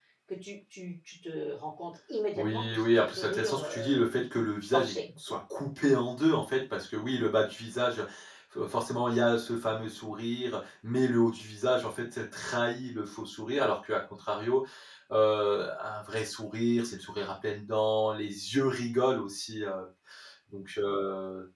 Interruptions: present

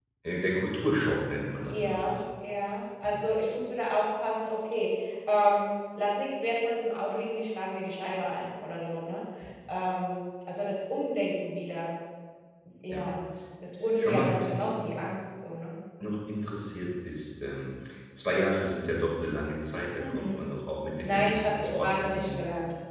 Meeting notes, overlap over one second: present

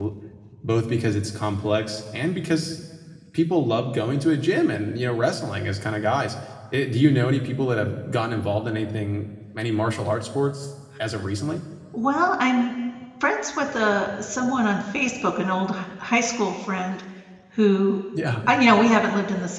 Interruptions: none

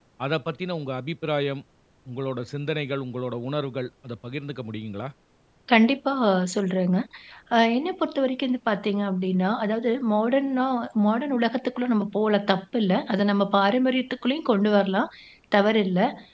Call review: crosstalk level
none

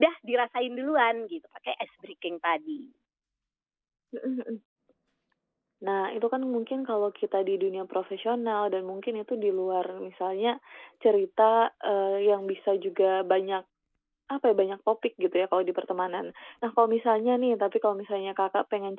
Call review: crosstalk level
none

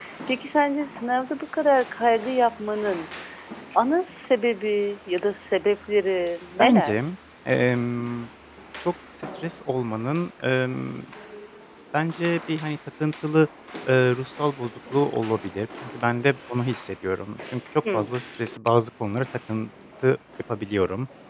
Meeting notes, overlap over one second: none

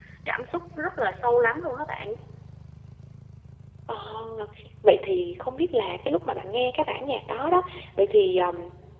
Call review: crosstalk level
none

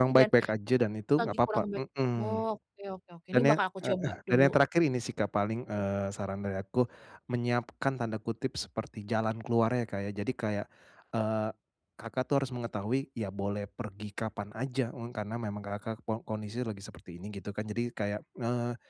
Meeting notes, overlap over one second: present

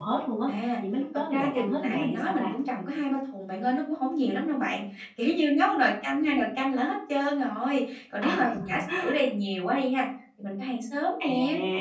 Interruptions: present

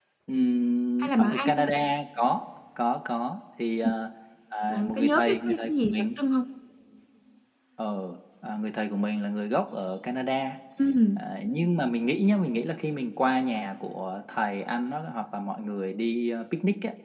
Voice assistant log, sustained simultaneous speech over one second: present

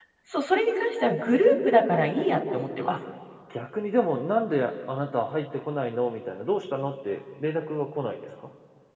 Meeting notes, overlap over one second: none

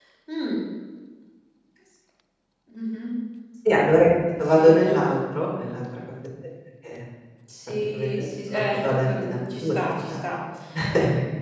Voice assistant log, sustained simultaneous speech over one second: present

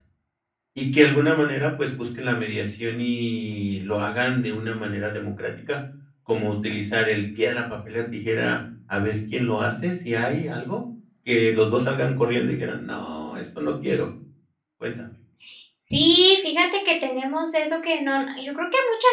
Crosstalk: none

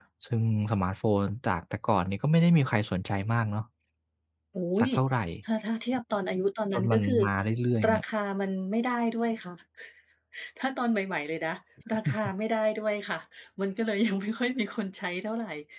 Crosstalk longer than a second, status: none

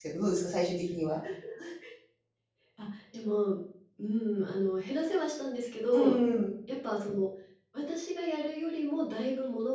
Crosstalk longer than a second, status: none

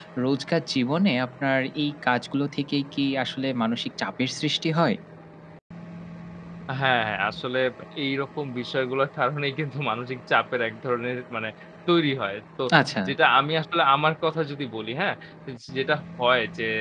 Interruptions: none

